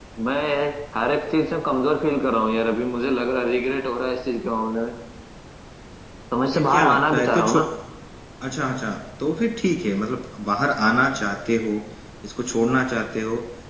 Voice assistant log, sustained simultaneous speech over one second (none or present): present